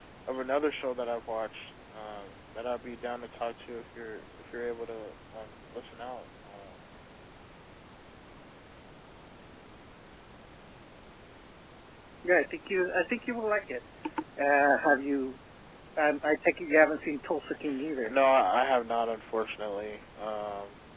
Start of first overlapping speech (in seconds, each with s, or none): none